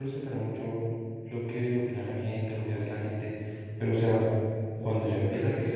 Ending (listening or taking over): taking over